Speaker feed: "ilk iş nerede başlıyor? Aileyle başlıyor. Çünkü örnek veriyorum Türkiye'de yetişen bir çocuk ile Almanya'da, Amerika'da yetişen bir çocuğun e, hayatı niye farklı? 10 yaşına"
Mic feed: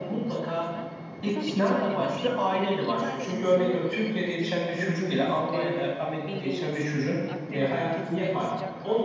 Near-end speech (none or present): present